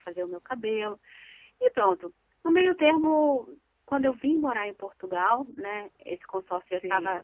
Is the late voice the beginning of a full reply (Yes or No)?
No